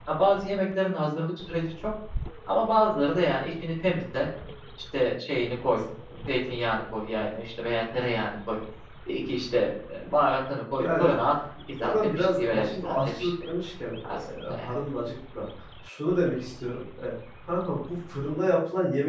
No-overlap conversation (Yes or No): No